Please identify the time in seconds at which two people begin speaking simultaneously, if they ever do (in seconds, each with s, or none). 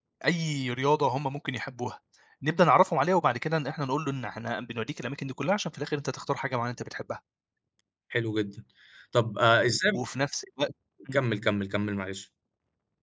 none